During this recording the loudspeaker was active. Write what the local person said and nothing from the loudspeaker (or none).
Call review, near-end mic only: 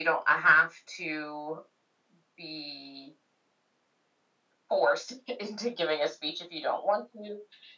none